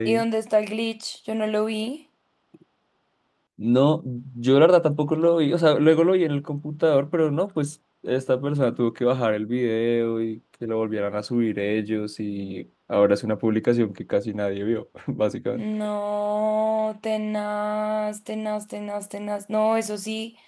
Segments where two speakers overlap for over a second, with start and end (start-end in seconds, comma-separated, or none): none